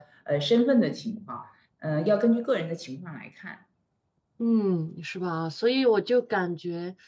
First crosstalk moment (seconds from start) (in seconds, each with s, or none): none